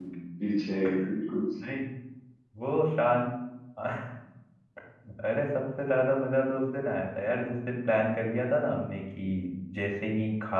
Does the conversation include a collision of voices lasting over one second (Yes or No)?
No